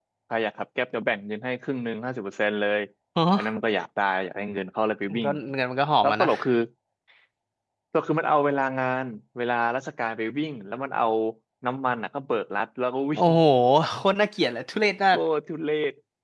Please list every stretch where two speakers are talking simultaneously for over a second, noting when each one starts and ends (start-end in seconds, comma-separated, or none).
none